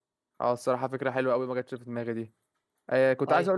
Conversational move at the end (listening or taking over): listening